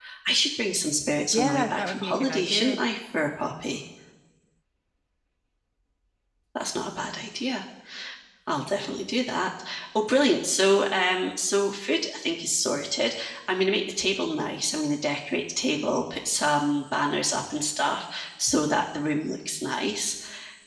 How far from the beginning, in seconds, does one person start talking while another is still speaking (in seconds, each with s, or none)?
1.3 s